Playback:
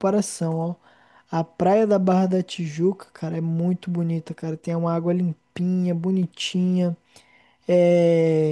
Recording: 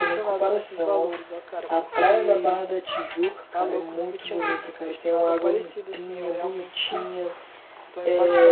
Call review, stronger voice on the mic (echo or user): echo